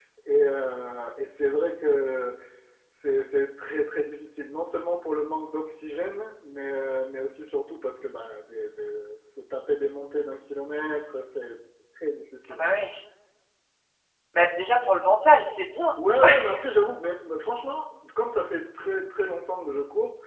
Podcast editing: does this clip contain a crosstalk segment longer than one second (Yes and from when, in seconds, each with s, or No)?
No